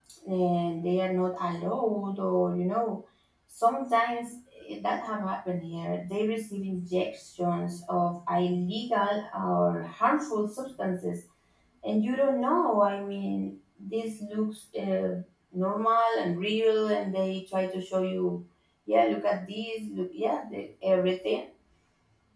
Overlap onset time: none

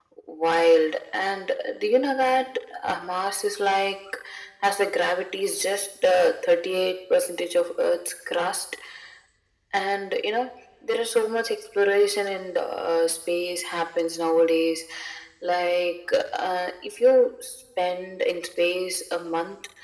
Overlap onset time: none

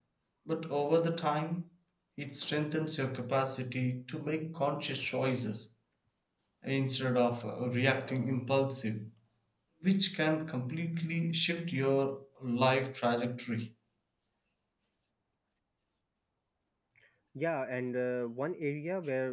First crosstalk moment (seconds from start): none

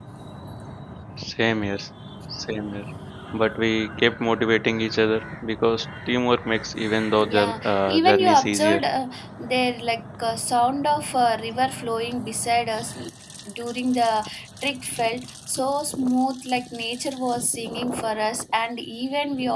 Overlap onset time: 7.2 s

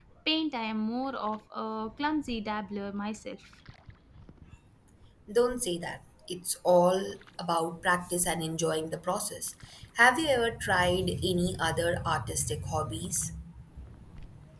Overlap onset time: none

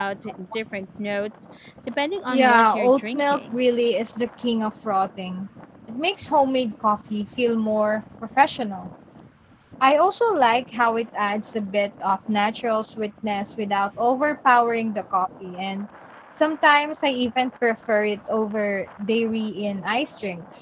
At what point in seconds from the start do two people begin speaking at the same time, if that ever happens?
2.3 s

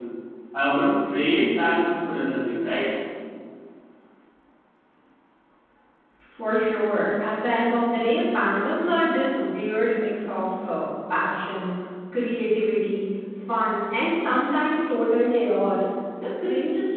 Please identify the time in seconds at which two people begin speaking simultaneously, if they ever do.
none

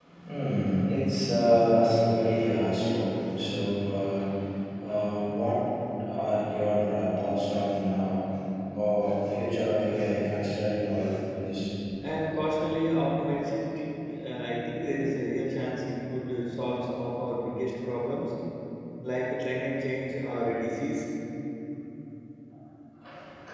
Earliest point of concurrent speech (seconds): none

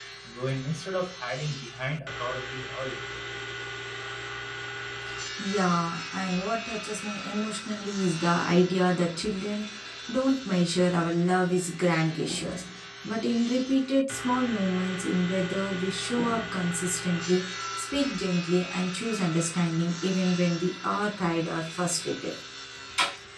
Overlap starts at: none

